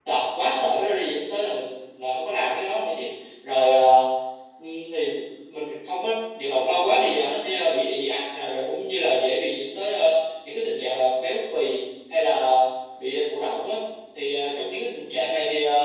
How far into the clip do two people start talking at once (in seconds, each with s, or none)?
none